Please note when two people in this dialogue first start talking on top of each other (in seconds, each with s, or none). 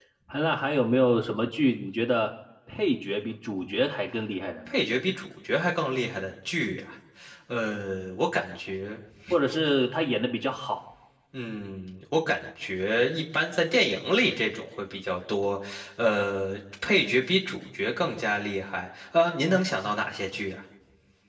none